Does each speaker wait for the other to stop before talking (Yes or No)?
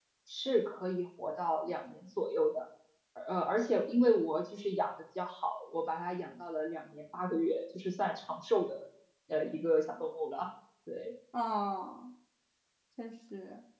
Yes